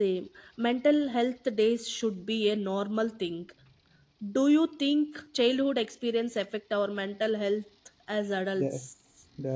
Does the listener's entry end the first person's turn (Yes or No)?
Yes